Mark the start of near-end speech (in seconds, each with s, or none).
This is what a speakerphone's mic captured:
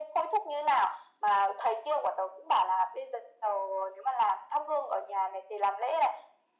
none